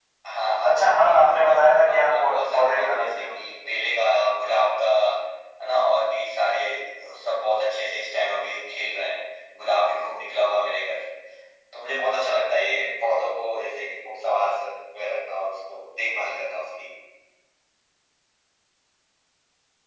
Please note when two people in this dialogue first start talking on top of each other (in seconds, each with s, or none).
0.7 s